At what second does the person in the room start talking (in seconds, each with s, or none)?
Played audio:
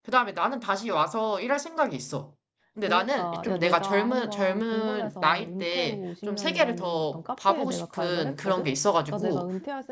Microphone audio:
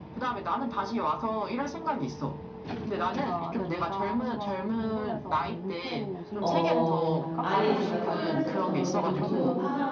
6.4 s